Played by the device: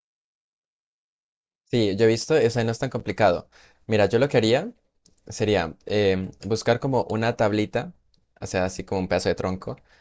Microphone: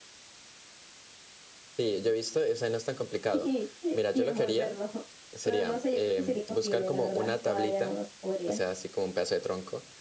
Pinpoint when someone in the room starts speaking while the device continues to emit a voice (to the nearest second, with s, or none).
3 s